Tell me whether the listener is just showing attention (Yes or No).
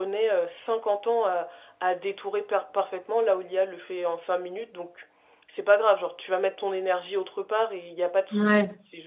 Yes